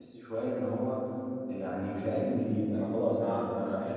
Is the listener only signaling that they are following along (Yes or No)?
Yes